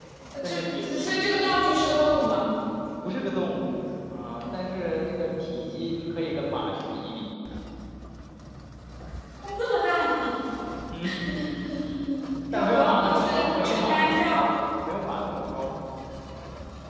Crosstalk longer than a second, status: present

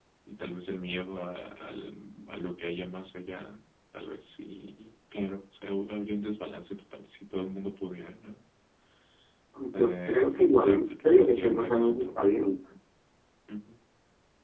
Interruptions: present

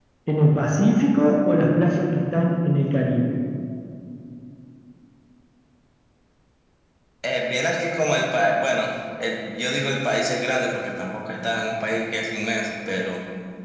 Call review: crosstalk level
none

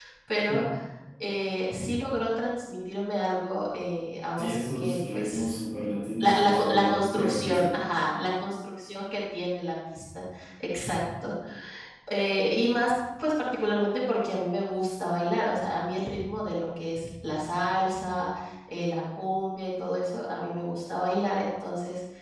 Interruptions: present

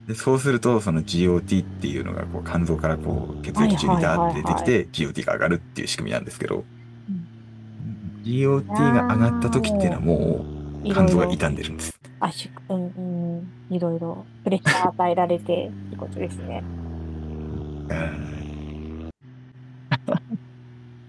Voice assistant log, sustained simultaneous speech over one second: present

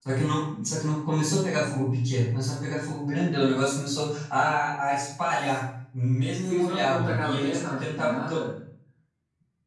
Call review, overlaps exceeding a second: present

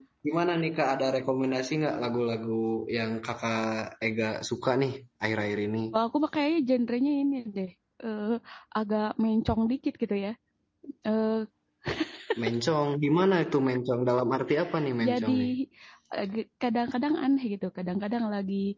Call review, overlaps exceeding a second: none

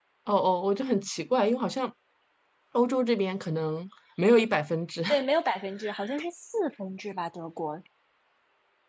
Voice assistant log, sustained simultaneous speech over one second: none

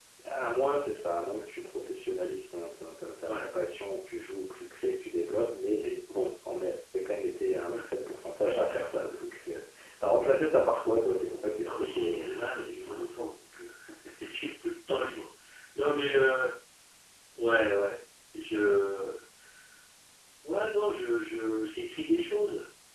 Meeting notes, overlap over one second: present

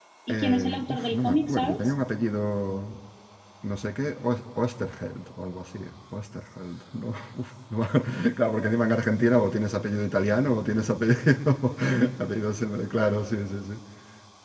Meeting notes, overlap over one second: present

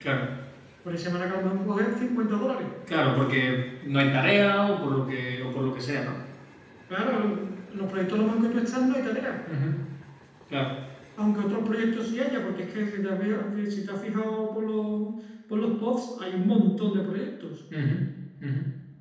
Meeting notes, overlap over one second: none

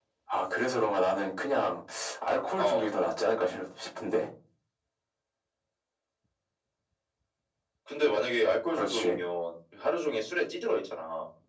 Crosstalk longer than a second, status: none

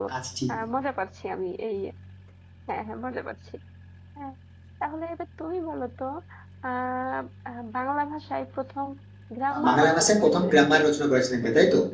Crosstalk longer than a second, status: present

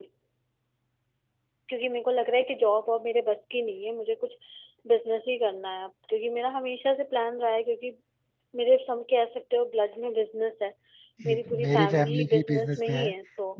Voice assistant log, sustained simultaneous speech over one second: present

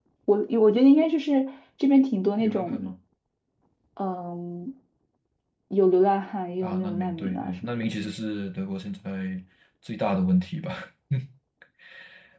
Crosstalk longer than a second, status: present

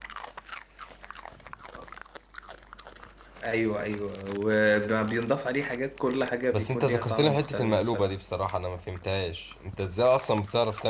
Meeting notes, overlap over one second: present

